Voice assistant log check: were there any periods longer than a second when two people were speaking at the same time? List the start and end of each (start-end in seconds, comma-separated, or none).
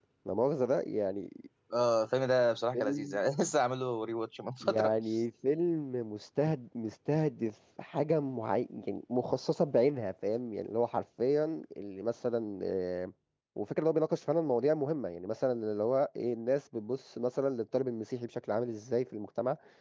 none